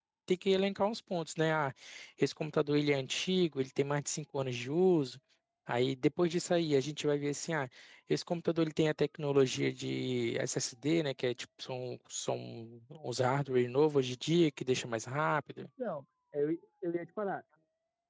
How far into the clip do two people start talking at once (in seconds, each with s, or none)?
none